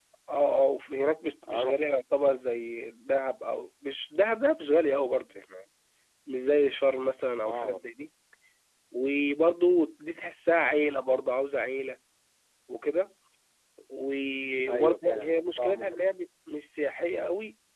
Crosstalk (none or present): present